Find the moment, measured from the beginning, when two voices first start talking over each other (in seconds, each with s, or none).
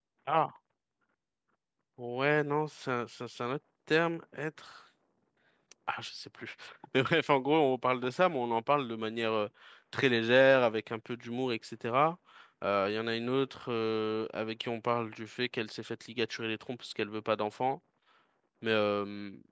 none